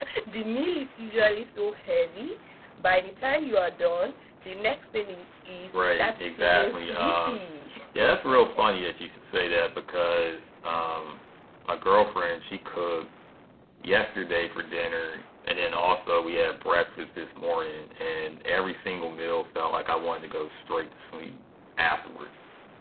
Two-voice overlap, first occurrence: 6 s

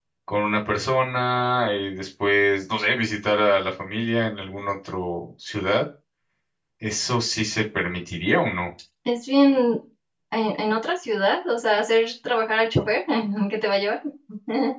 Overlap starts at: none

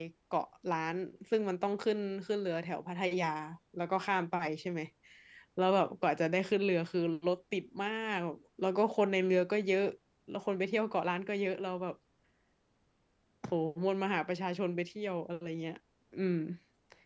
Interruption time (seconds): none

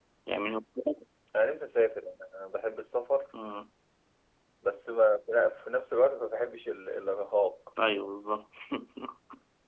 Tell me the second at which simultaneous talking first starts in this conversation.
none

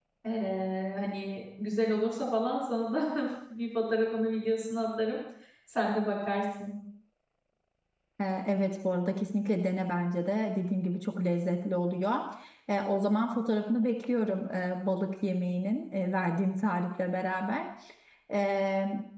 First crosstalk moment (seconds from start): none

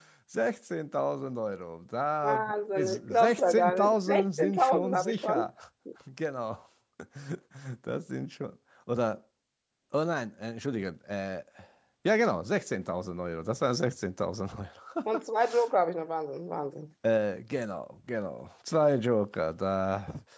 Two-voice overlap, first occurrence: 2 s

